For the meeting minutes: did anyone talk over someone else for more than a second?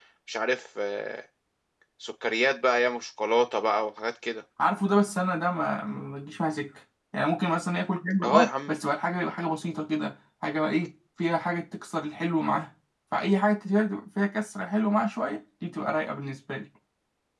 No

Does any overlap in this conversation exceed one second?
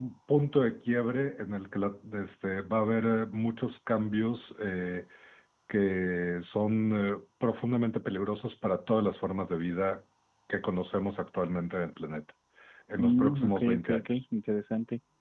Yes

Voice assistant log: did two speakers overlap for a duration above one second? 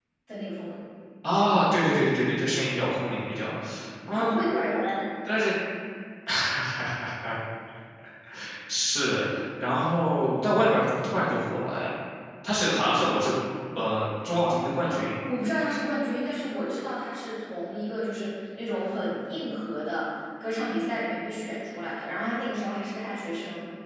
No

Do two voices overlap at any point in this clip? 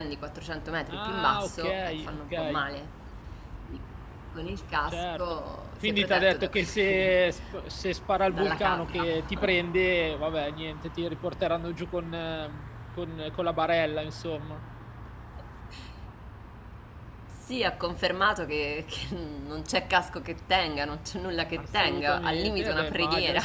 Yes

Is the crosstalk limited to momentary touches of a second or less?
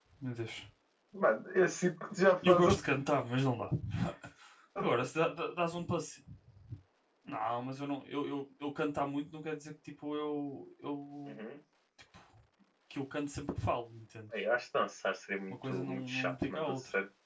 No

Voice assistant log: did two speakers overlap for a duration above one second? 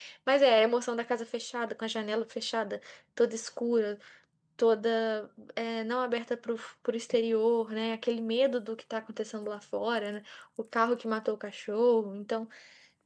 No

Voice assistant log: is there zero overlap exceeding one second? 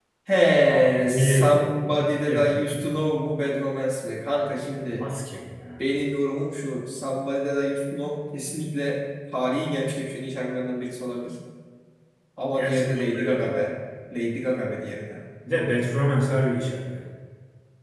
No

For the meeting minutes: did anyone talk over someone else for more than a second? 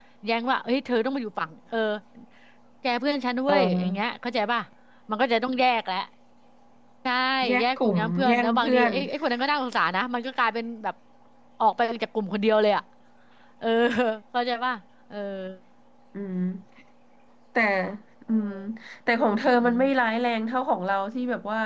Yes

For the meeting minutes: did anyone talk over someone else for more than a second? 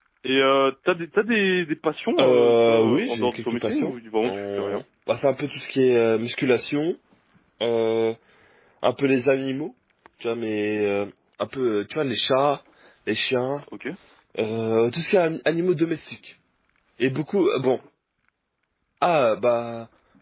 Yes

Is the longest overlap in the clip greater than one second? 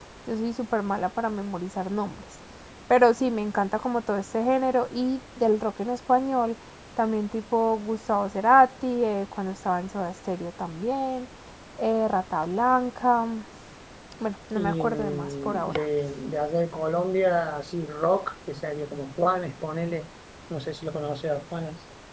Yes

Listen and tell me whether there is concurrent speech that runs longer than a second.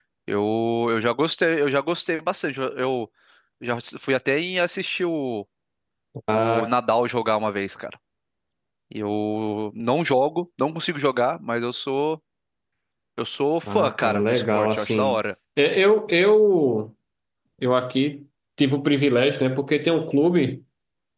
Yes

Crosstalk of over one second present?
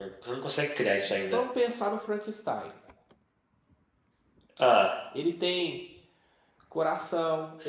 No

